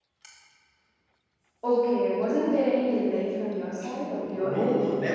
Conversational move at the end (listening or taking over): taking over